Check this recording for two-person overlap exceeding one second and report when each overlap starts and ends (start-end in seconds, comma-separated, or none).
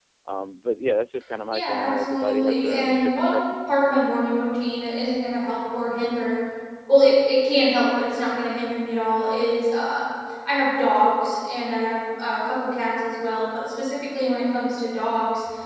1.5-3.8